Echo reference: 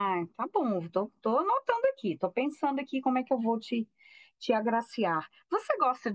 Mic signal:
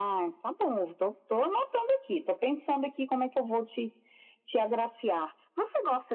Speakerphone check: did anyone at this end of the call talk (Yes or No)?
No